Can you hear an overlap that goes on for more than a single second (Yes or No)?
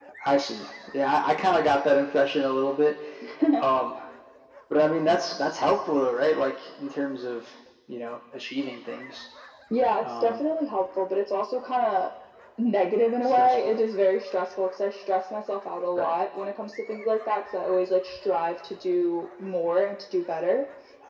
No